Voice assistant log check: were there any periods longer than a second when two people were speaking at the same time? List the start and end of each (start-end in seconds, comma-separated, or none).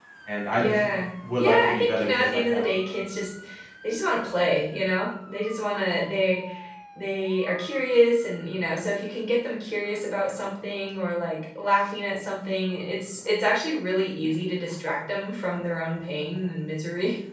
1.4-2.6